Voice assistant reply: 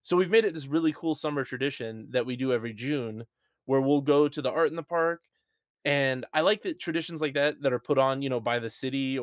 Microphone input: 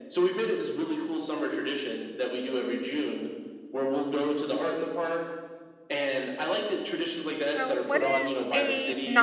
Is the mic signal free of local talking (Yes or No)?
No